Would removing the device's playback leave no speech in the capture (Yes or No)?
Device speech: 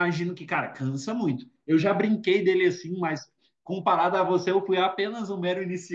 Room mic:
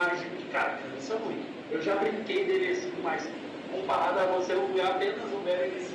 Yes